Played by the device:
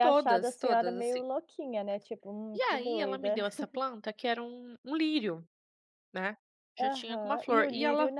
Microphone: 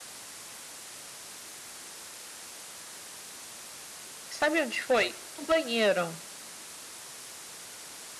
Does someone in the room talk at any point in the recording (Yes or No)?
Yes